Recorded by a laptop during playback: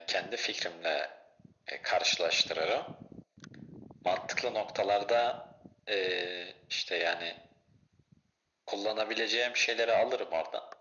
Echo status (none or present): present